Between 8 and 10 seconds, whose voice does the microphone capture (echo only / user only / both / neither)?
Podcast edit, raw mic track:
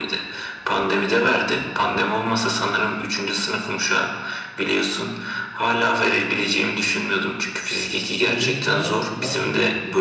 both